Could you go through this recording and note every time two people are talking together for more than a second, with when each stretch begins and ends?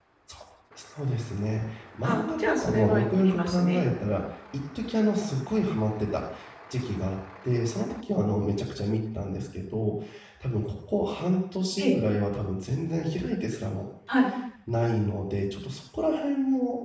2.0-3.8

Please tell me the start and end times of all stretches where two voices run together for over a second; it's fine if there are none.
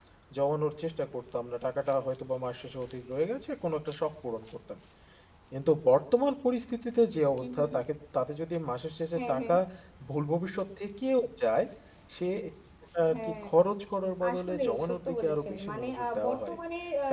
14.3-16.6

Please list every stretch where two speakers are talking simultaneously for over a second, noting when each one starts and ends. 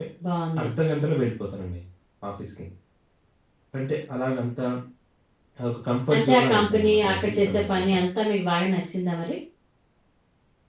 6.1-8.0

